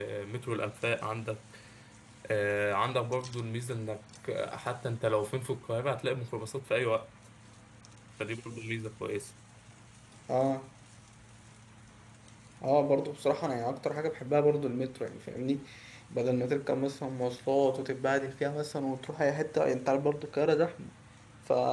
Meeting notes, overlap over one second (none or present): none